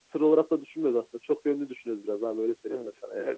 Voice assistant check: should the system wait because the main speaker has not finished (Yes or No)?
No